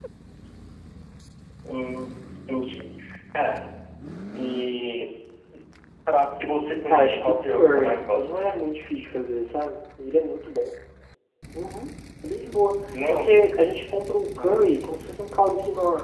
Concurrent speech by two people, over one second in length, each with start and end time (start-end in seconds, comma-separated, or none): 6.9-8.4